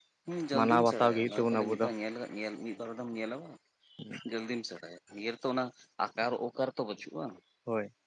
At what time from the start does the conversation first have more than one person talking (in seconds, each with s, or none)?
0.5 s